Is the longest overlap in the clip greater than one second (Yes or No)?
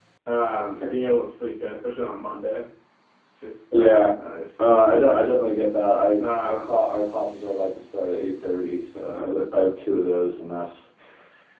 No